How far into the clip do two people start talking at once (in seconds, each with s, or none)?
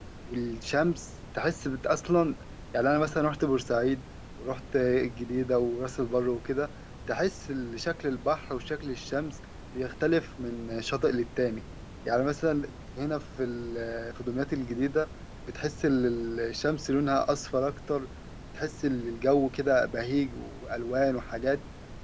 none